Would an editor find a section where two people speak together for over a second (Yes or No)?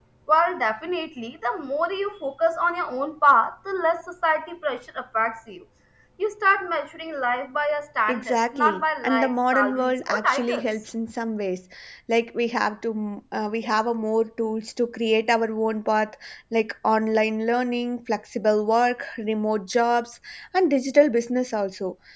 Yes